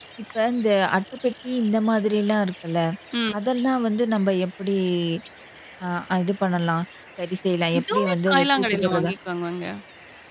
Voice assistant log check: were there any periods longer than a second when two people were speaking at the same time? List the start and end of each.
7.8-9.1

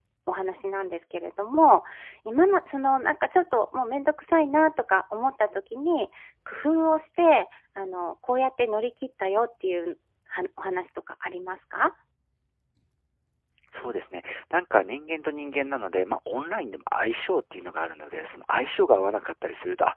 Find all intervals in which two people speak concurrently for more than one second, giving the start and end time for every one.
none

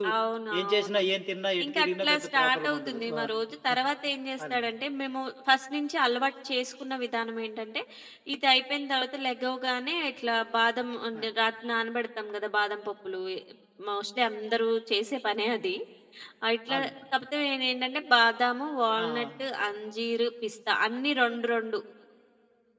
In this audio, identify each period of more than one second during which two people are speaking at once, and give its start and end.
1.6-3.2

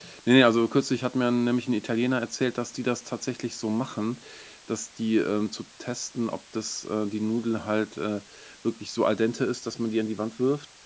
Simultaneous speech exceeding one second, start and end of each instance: none

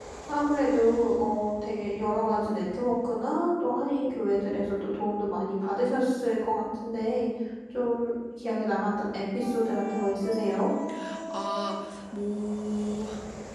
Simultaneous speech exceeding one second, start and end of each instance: none

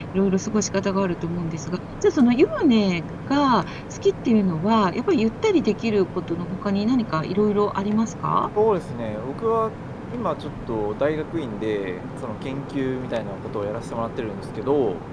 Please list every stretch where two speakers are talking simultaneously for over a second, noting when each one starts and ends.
none

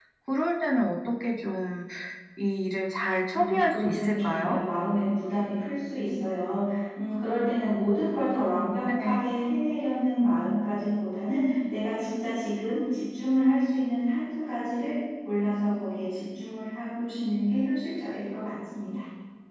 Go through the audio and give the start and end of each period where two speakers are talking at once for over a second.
3.3-4.6

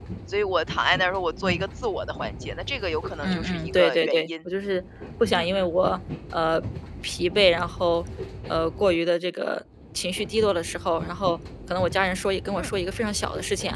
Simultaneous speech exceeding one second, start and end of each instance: 3.2-4.5

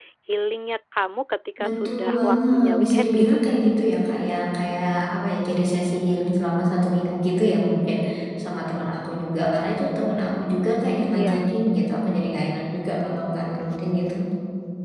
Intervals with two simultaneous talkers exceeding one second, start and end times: 1.6-3.4

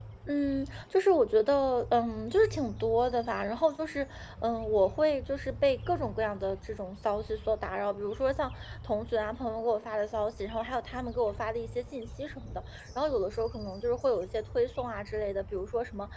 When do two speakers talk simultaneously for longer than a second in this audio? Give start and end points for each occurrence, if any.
none

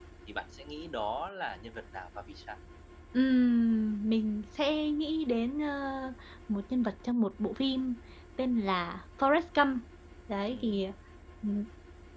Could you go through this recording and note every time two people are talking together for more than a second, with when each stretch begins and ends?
none

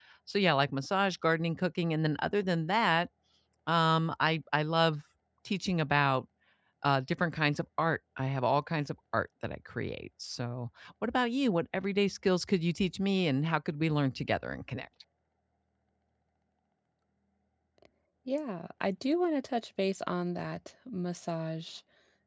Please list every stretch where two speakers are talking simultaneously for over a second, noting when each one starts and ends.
none

